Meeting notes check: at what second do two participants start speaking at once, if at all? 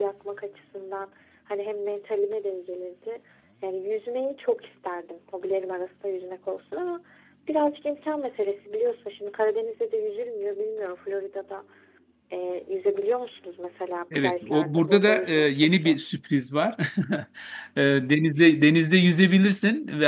14 s

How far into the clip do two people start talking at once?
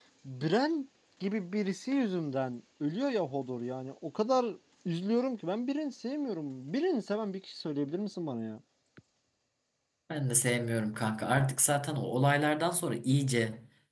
none

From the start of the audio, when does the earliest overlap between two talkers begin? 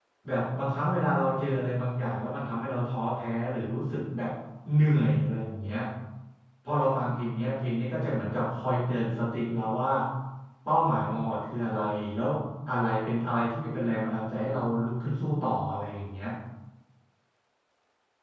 none

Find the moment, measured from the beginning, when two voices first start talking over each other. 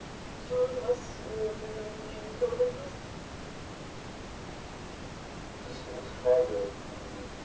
none

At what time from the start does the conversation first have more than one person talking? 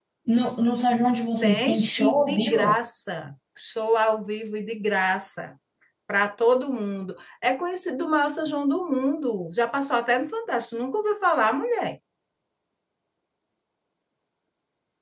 1 s

